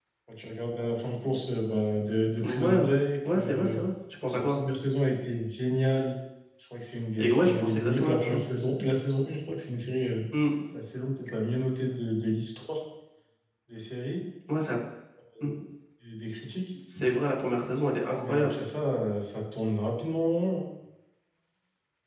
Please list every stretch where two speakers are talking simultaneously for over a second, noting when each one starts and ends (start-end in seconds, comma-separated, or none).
7.2-8.4